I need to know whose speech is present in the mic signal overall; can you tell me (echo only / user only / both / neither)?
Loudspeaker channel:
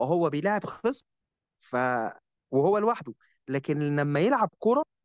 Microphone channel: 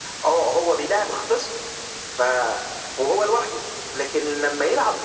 echo only